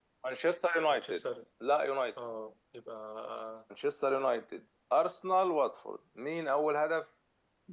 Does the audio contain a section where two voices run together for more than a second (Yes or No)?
No